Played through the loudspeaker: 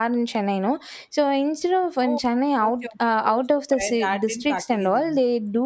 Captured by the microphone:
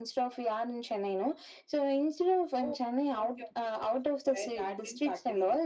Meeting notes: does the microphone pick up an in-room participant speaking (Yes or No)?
No